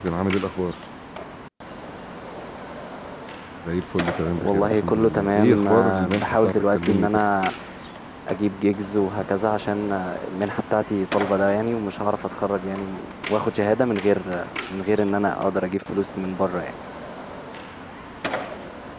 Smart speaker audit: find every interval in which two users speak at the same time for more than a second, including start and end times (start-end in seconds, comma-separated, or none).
4.4-7.1